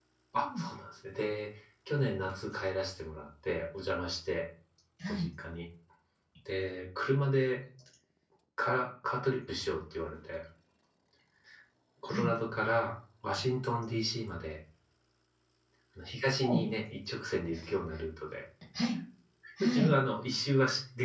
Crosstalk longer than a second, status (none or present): none